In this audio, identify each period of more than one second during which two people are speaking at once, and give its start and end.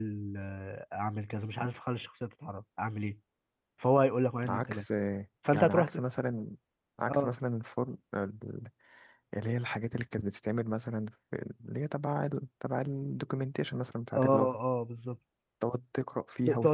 none

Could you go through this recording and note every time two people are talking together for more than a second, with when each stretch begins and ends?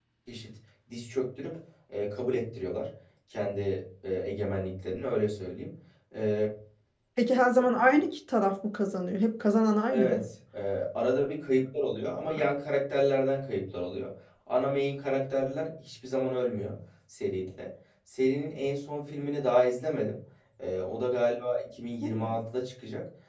none

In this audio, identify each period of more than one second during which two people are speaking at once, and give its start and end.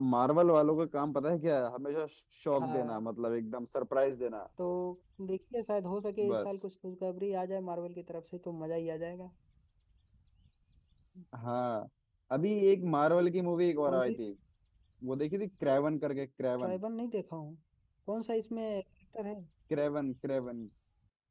none

